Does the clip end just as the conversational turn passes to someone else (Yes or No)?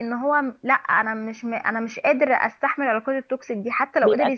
No